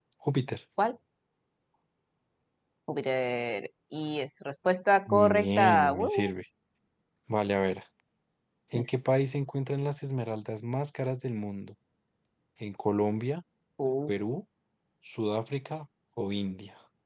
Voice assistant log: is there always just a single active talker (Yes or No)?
No